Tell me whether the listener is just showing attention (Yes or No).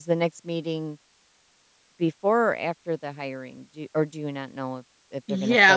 No